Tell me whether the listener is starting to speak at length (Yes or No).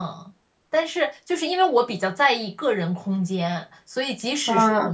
No